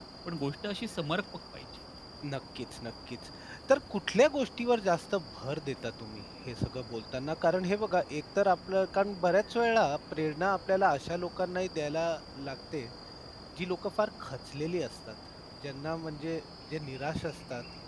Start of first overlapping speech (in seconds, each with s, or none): none